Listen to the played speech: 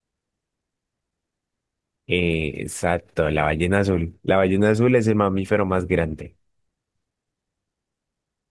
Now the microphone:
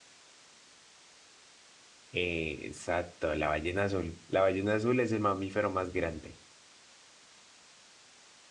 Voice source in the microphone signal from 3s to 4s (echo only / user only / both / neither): echo only